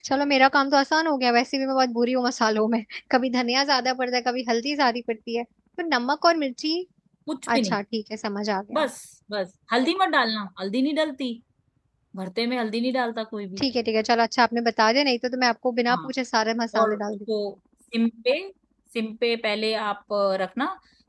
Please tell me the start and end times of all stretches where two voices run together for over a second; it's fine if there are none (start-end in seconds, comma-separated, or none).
none